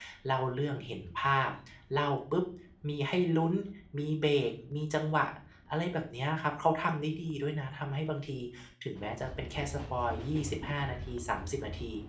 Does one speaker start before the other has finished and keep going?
No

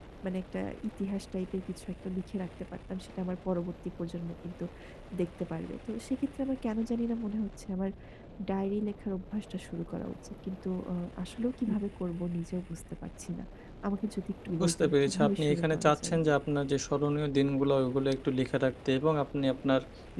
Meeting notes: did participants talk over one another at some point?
Yes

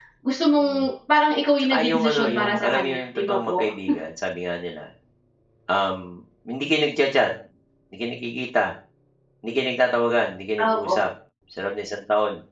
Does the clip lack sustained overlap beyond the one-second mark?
No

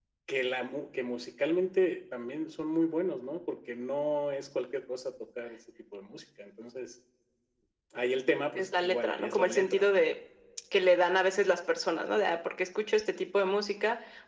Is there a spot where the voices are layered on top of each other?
Yes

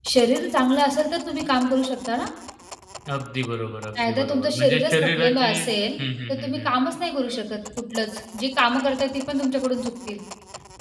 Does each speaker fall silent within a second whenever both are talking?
No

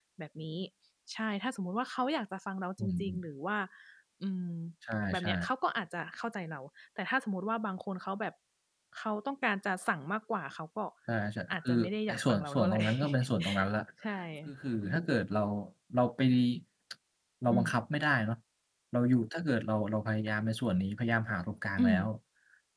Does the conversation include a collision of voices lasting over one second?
Yes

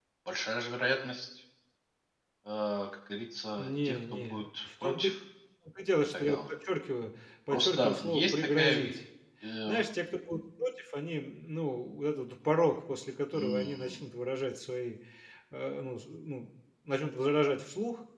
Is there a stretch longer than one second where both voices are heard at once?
Yes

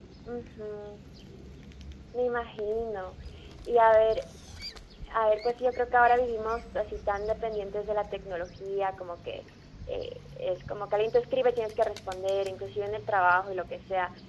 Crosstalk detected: No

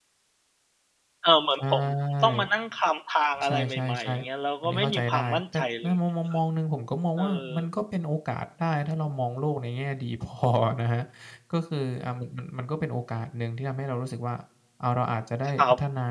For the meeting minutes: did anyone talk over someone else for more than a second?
Yes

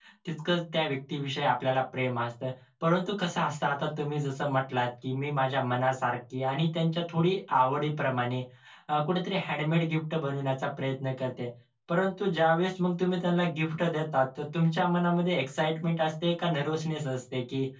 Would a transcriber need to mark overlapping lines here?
No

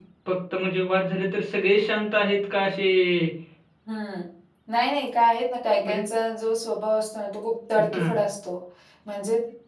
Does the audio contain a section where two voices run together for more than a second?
No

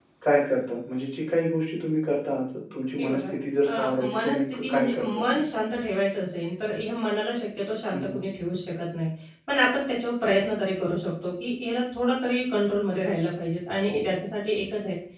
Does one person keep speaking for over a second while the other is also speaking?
Yes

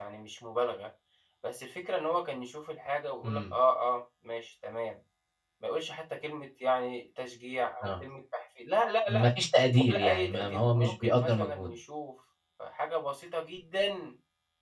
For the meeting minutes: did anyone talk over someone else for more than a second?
Yes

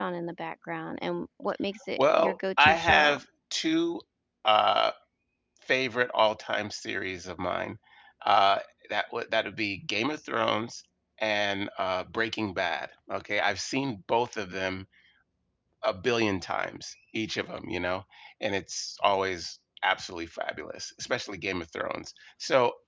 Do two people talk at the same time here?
Yes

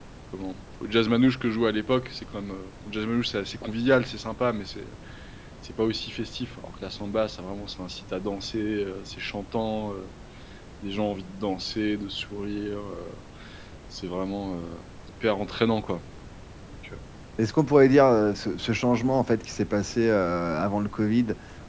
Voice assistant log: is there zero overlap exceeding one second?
Yes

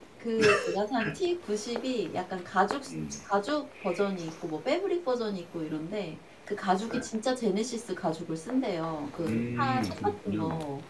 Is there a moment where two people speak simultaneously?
Yes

